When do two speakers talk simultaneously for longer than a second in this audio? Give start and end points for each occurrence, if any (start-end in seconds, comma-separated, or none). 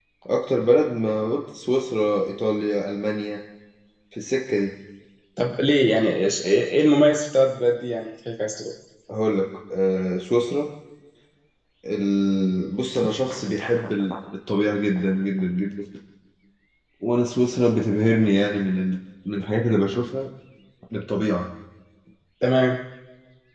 none